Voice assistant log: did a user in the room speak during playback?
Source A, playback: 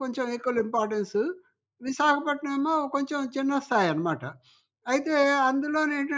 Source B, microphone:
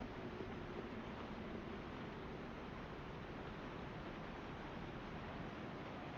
No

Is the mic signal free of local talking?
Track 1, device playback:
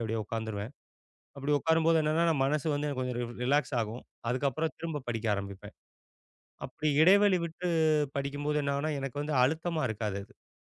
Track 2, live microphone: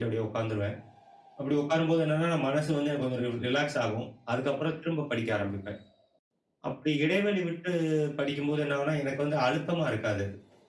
Yes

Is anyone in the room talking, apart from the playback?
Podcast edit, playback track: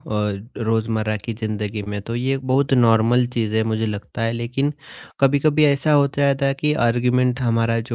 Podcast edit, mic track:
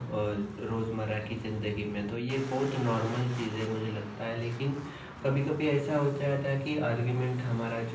No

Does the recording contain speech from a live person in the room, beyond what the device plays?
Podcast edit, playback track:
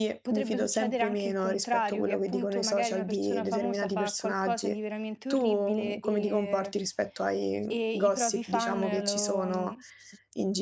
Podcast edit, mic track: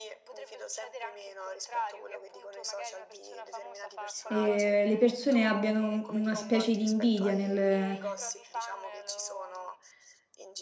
Yes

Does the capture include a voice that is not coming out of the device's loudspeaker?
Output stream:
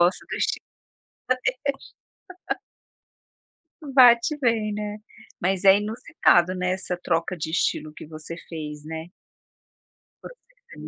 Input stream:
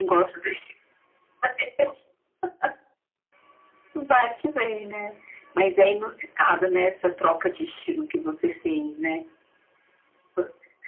No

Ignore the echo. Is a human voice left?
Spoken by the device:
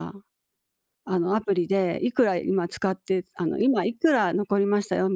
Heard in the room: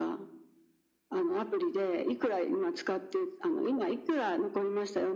No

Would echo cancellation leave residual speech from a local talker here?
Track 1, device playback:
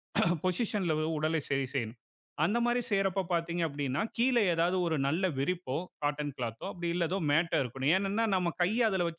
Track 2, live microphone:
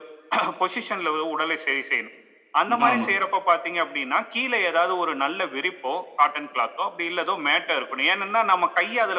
Yes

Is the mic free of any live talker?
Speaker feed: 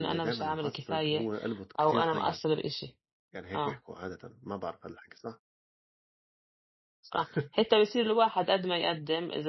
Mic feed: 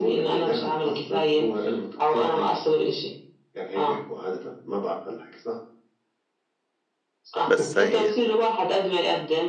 No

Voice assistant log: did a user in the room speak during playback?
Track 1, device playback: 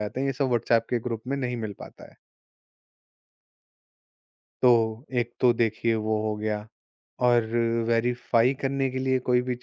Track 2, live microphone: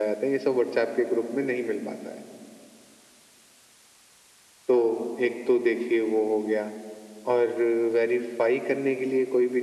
No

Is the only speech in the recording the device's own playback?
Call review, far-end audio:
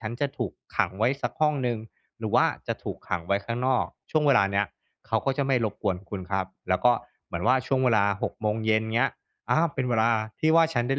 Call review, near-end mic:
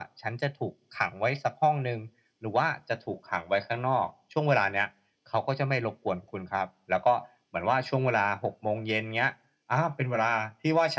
Yes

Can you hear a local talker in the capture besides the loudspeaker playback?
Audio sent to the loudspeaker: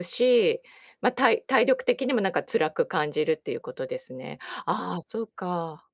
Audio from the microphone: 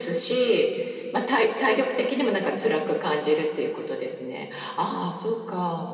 No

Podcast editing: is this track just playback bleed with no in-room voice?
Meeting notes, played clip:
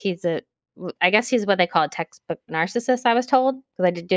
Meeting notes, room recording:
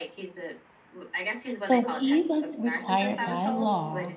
No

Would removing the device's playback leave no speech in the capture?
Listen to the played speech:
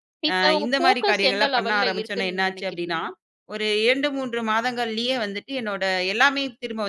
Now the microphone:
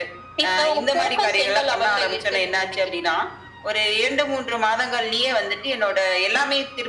Yes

